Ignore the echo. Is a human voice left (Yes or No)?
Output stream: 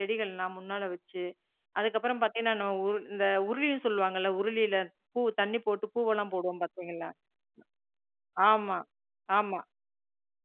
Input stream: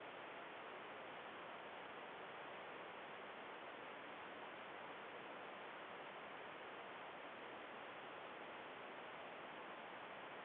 No